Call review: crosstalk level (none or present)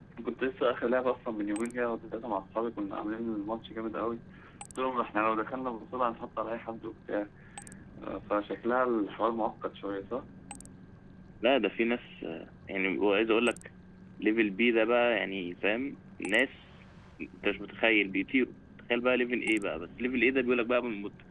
none